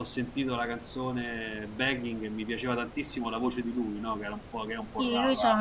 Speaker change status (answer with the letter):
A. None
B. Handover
B